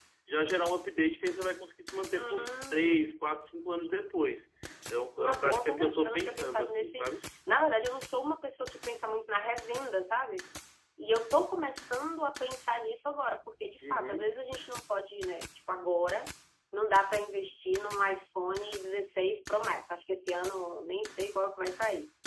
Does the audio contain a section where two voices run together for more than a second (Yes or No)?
Yes